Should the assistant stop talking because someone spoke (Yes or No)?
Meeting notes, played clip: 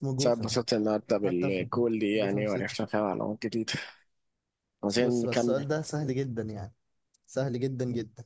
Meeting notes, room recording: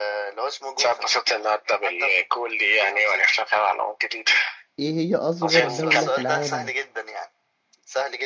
Yes